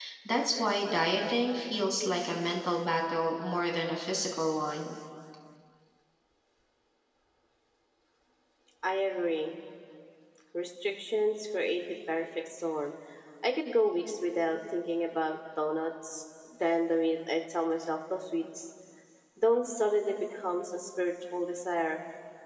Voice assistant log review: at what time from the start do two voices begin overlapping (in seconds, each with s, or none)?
none